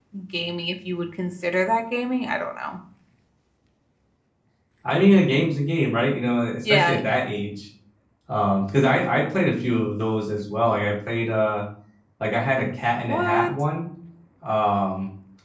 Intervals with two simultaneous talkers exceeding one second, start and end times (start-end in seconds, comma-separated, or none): none